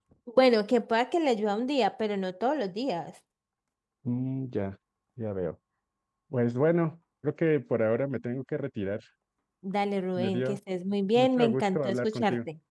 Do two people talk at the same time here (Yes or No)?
Yes